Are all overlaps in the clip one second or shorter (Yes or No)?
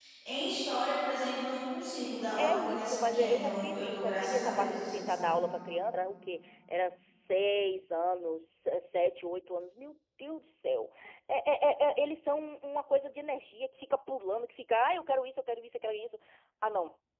No